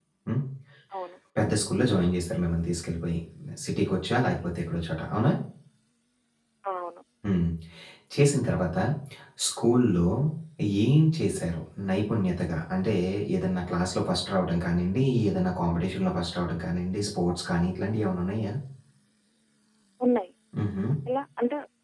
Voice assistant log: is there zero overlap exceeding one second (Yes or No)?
Yes